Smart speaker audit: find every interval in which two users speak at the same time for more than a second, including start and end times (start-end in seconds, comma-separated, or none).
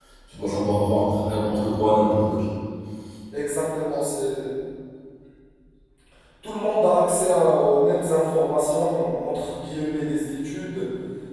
none